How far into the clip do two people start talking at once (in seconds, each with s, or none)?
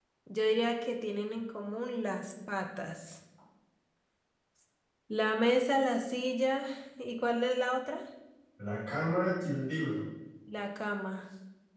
none